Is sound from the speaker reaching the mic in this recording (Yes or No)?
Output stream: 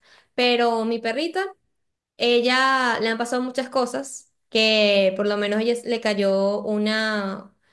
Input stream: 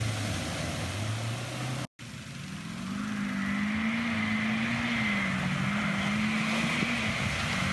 No